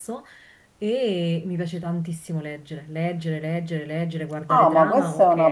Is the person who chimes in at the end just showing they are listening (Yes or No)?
No